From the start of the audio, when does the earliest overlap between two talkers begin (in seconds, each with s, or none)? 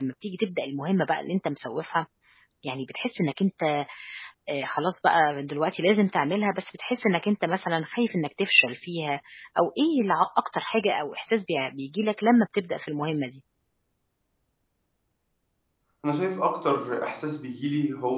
none